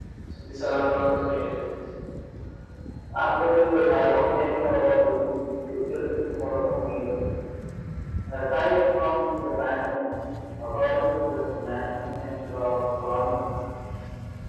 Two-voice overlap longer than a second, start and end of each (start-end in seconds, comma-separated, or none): none